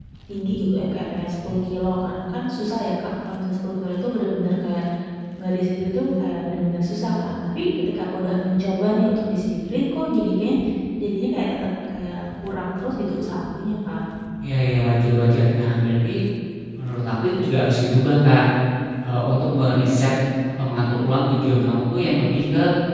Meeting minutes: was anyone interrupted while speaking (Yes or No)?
No